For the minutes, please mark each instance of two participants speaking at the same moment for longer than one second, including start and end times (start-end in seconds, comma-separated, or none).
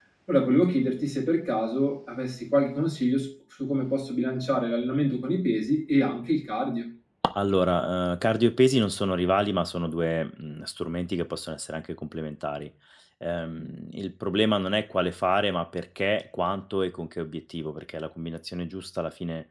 none